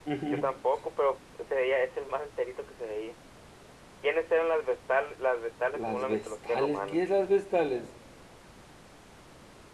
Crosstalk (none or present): present